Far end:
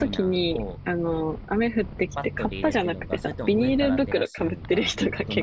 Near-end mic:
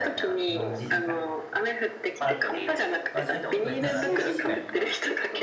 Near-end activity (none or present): present